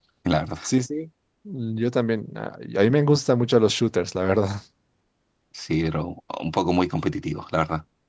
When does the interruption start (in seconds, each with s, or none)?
none